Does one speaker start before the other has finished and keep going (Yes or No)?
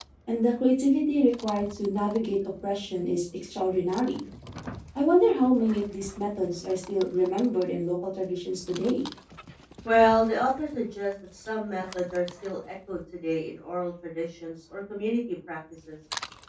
No